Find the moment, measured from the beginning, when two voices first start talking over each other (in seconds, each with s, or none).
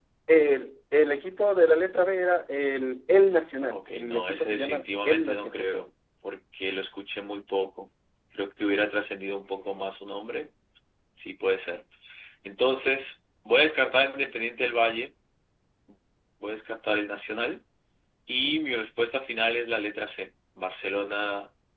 3.7 s